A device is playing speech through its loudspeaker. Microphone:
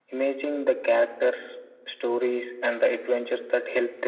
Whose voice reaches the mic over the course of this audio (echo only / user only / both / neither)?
echo only